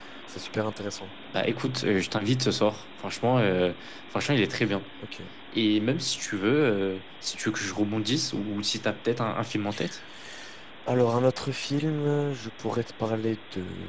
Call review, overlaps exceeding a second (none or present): none